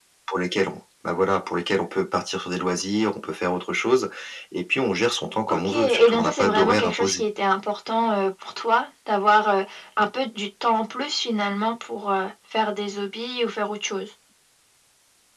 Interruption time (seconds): 5.5 s

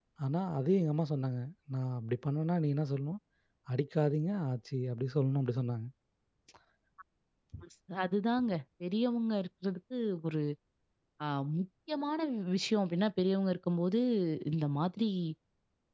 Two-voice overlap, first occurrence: none

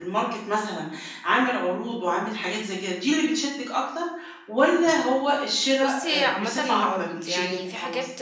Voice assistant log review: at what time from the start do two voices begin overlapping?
5.8 s

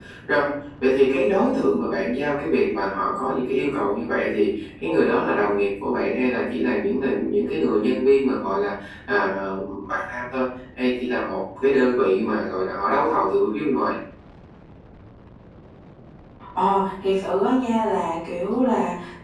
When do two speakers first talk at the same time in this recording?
none

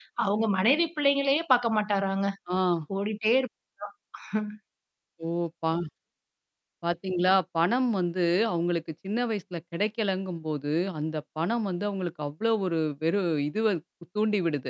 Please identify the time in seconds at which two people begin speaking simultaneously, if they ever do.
none

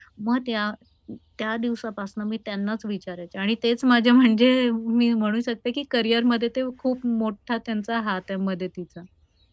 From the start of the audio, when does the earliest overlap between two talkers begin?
none

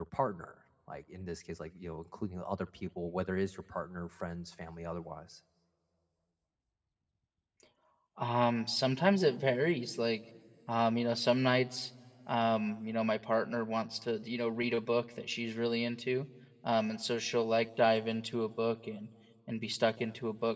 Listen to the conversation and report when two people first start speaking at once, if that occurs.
none

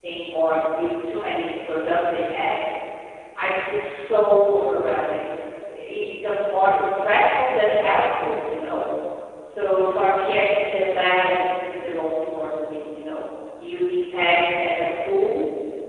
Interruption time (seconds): none

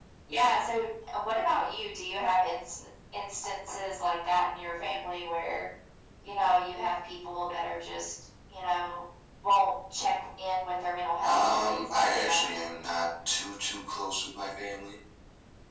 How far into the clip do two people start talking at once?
11.2 s

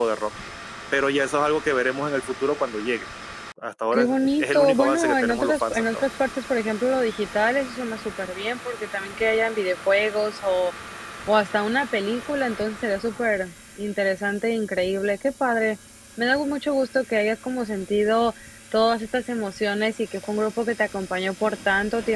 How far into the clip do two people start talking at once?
3.9 s

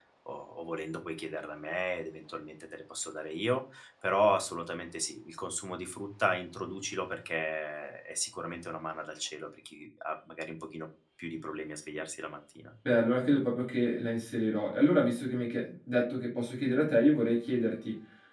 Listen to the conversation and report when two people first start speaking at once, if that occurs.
none

